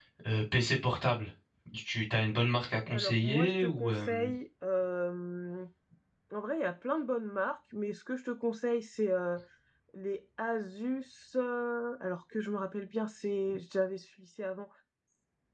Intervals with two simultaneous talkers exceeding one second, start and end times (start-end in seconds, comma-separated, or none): 2.9-4.3